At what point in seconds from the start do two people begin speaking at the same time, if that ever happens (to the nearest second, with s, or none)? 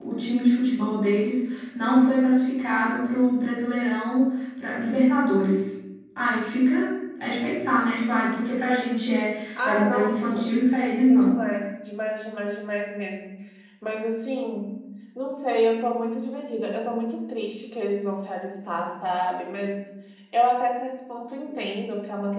10 s